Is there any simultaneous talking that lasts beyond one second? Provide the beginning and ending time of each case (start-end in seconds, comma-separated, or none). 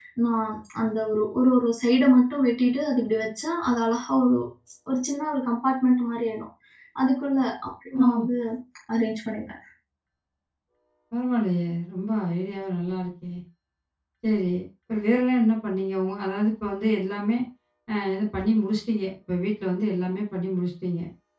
none